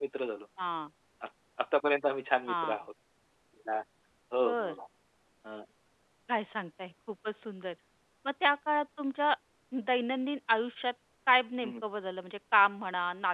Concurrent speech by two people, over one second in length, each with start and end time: none

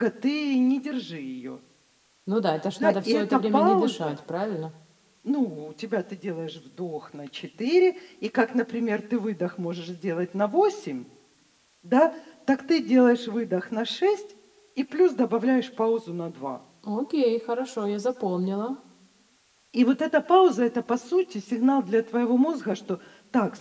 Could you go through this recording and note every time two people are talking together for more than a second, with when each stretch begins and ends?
2.8-4.1

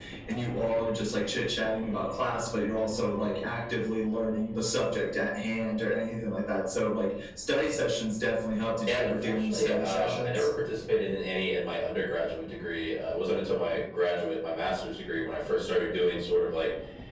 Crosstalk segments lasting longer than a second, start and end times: 8.9-10.5

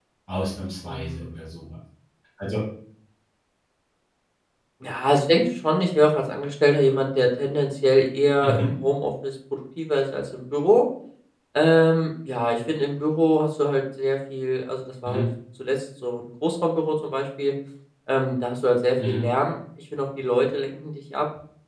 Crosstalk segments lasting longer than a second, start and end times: none

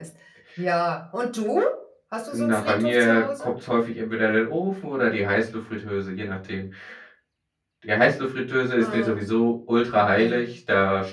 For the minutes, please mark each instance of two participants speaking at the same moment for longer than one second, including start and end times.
2.3-3.5

